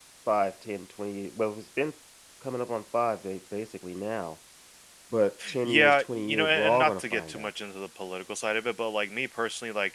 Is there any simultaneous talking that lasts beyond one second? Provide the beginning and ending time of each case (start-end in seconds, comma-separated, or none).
5.6-7.5